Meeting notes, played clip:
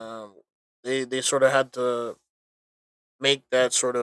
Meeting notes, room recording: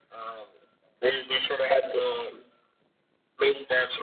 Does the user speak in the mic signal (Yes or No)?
No